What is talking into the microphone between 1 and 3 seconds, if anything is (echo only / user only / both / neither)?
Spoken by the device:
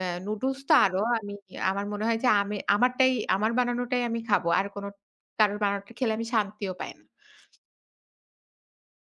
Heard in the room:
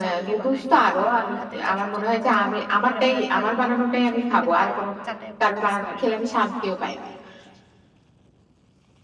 both